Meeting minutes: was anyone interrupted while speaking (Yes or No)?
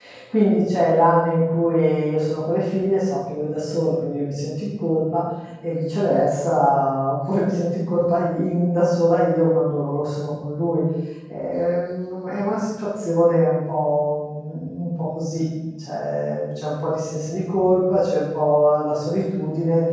No